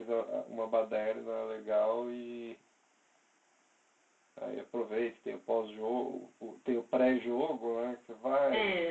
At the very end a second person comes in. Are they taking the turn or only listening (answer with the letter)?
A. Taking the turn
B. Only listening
A